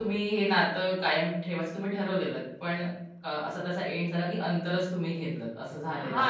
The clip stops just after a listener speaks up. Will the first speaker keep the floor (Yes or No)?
No